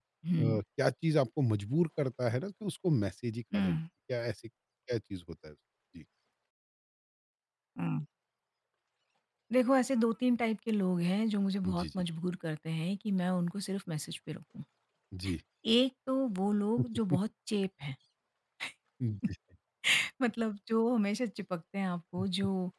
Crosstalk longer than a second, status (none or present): none